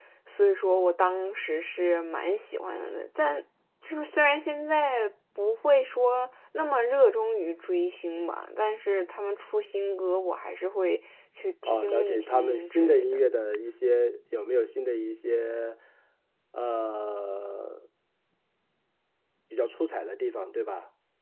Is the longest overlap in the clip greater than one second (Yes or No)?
Yes